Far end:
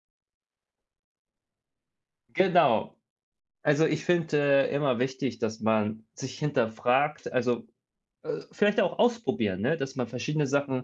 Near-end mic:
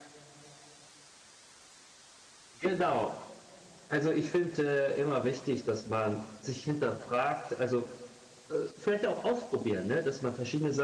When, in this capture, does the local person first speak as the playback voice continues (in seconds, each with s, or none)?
none